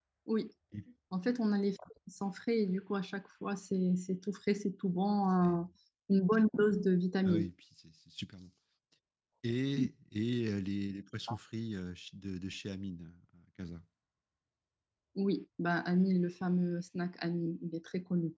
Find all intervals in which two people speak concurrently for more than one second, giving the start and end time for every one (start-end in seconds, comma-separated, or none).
none